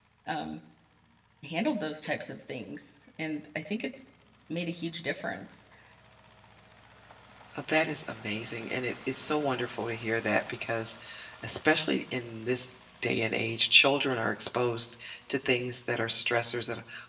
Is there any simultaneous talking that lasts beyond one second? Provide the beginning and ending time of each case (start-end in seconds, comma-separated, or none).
none